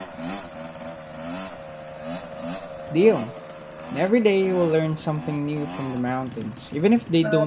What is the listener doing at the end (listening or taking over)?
taking over